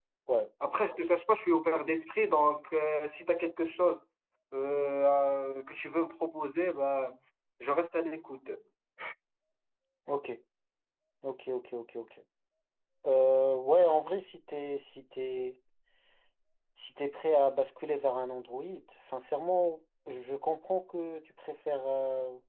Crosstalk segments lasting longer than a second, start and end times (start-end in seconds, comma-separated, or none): none